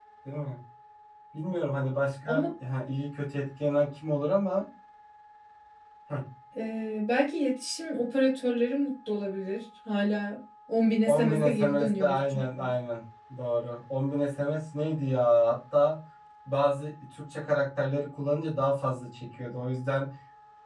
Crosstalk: present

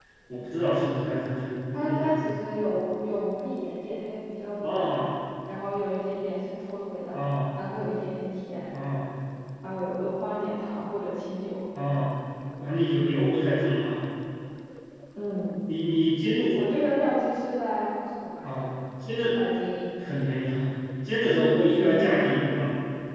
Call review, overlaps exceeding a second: none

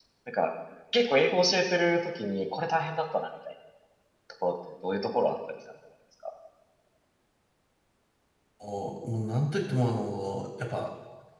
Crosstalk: none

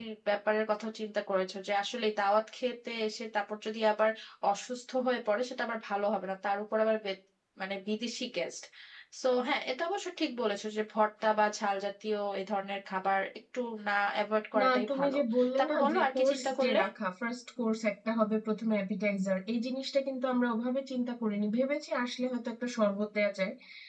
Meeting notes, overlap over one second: present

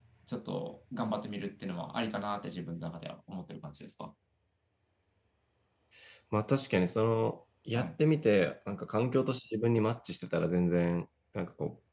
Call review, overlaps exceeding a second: none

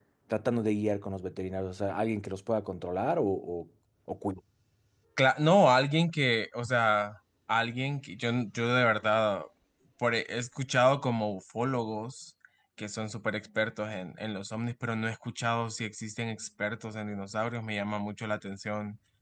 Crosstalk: none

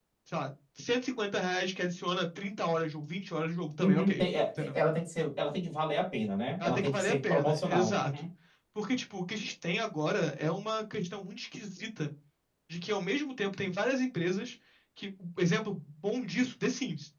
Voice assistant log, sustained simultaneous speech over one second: present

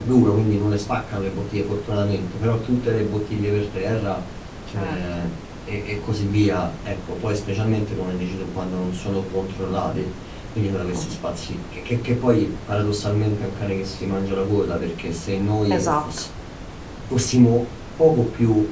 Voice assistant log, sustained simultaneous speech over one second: none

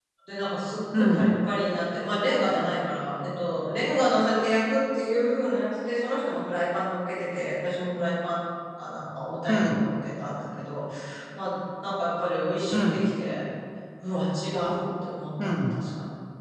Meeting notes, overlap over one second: none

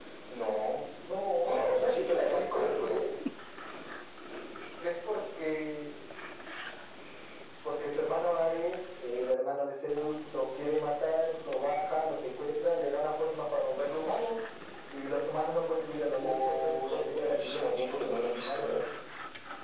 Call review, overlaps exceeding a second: present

